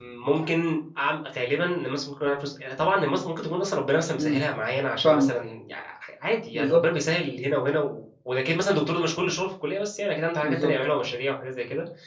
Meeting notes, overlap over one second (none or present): none